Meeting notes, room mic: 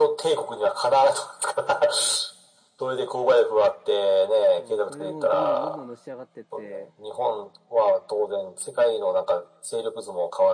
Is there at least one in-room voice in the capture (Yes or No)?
Yes